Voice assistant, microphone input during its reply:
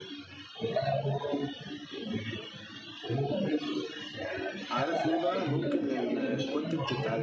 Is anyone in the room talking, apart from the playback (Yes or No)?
Yes